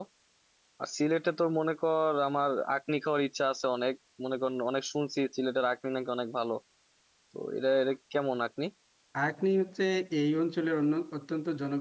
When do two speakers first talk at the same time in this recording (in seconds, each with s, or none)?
none